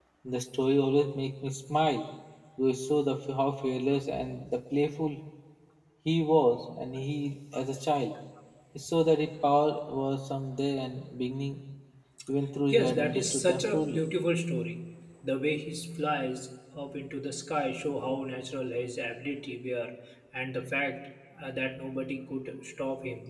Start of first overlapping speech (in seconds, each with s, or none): 12.7 s